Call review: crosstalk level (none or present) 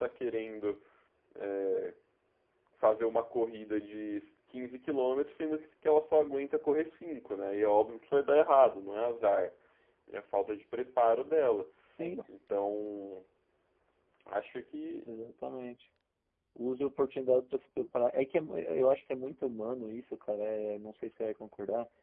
none